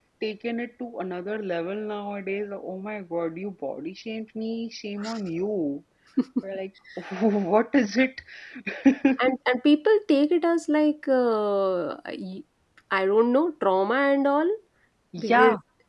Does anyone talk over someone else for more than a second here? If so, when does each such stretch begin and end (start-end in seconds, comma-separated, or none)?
none